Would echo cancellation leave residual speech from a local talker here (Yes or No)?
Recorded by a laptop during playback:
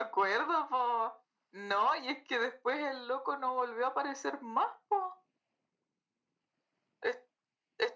No